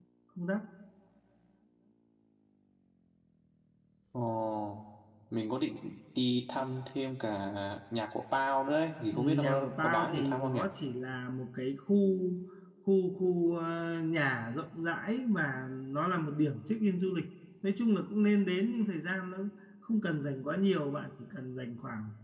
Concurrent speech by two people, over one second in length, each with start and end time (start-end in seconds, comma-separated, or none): 9.1-10.6